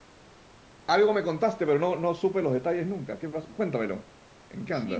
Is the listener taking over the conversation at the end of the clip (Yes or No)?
Yes